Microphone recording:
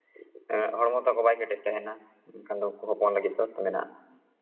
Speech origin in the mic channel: user only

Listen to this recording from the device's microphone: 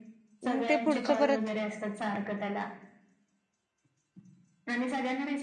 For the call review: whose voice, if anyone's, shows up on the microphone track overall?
both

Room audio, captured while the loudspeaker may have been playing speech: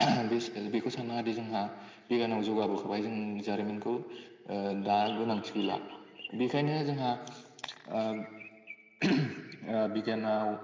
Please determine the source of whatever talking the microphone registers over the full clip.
echo only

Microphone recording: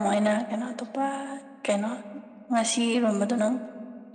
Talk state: echo only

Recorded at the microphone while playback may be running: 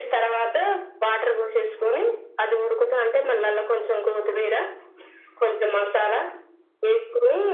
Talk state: echo only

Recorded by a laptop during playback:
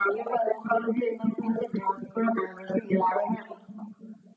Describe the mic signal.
echo only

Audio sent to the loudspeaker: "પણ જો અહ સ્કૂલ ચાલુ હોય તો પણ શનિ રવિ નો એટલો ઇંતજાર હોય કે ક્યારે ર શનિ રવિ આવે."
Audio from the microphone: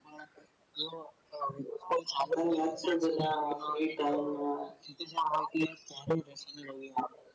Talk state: both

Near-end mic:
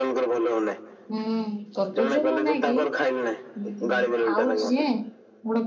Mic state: both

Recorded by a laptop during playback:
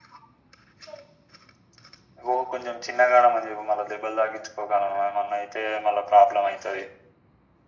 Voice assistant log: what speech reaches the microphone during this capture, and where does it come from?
echo only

